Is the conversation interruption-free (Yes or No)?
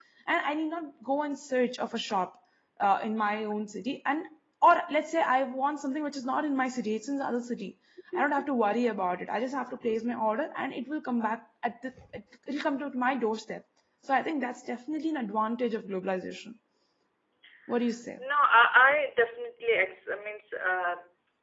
Yes